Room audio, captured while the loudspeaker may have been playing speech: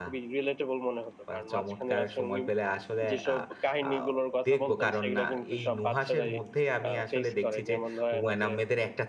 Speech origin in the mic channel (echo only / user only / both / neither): both